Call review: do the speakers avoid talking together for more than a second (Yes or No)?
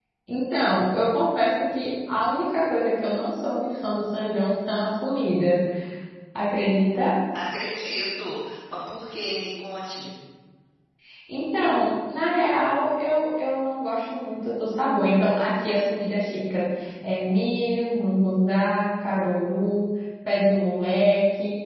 Yes